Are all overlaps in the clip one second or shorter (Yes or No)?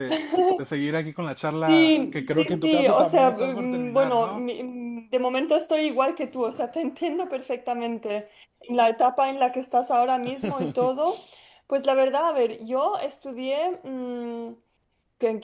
No